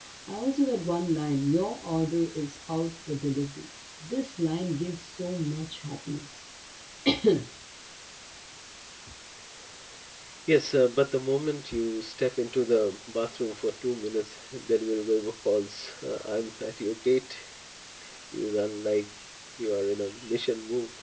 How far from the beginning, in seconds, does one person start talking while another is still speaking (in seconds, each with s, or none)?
none